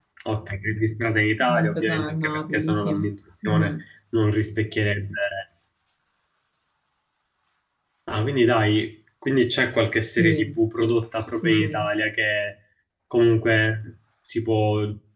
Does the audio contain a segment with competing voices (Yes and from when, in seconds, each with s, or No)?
Yes, from 1.4 s